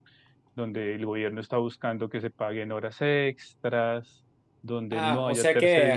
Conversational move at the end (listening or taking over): taking over